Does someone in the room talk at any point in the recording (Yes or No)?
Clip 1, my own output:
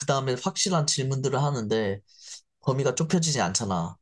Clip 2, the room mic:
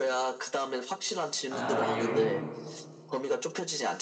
Yes